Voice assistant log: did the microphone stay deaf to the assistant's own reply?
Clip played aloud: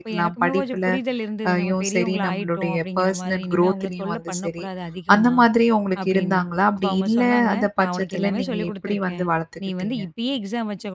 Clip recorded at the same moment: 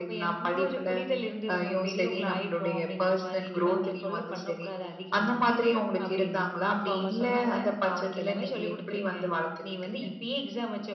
No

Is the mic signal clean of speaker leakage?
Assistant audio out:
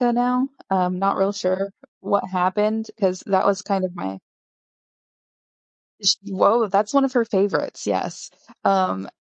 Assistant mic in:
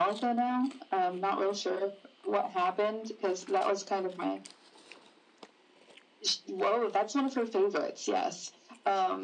No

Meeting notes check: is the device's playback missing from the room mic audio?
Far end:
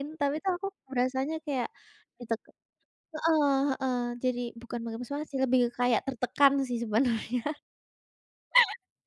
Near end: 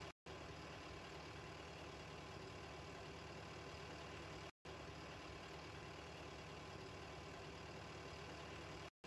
Yes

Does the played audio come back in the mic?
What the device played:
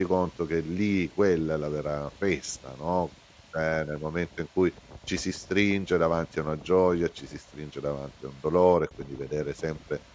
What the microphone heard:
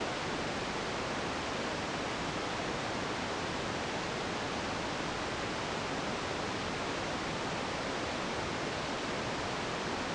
No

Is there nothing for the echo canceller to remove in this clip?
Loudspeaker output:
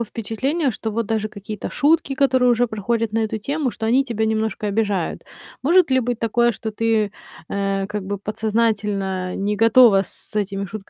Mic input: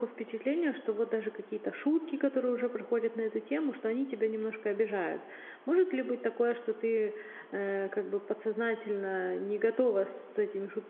No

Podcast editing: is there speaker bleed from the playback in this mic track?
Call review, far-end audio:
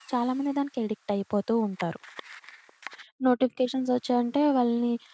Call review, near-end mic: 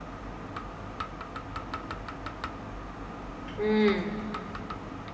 No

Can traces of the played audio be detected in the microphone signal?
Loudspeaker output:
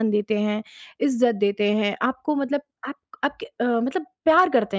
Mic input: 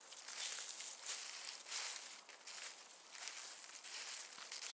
No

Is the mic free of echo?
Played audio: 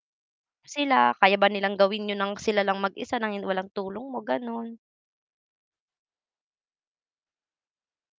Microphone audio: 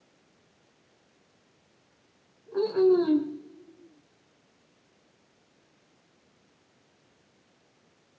Yes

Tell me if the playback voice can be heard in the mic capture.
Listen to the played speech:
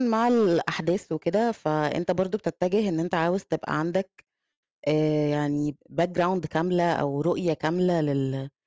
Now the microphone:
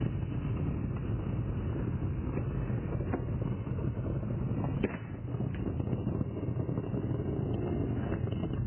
No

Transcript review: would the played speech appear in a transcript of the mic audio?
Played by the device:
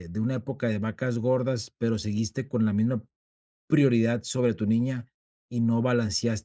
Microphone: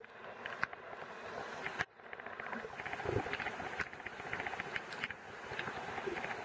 No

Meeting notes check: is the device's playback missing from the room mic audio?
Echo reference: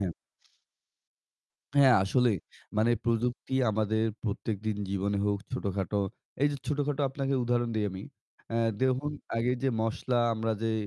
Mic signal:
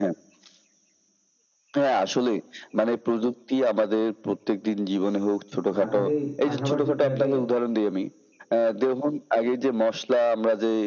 No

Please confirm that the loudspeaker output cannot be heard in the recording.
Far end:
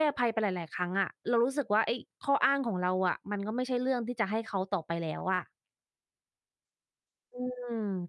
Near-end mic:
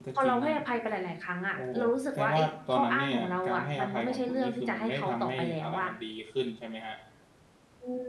No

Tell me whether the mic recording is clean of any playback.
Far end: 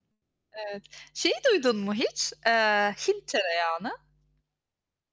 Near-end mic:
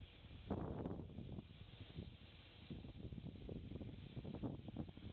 Yes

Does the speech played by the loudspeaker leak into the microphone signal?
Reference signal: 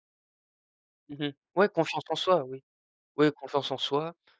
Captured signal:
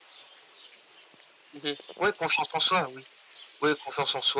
Yes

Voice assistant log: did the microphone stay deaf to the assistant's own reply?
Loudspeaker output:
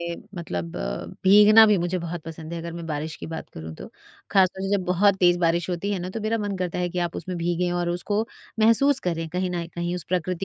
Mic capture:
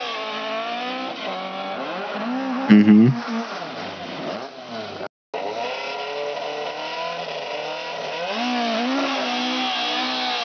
Yes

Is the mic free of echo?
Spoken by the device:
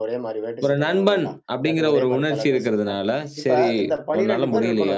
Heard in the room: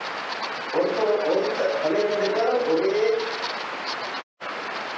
Yes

